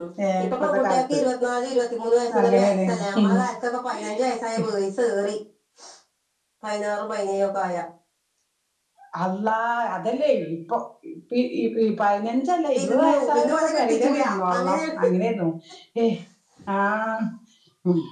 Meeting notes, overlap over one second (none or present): present